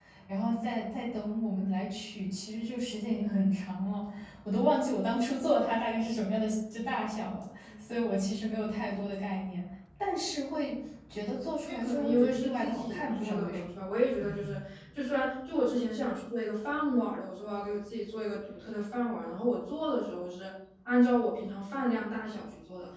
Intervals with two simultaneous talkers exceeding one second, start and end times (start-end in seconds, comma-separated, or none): 11.7-13.7